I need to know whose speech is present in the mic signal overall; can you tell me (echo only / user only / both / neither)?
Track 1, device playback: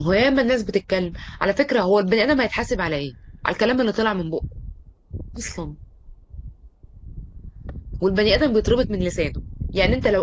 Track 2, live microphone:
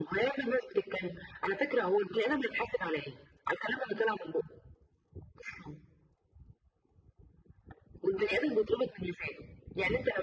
echo only